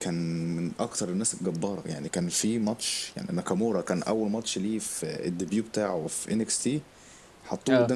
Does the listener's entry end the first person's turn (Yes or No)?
No